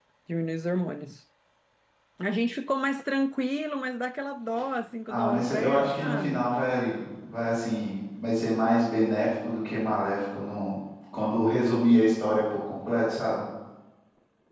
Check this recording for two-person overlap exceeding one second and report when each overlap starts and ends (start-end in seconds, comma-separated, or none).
5.1-6.5